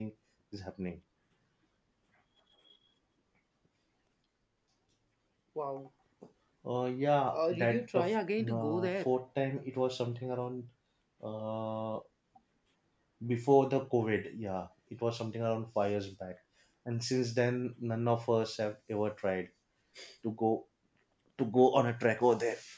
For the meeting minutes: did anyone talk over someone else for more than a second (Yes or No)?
Yes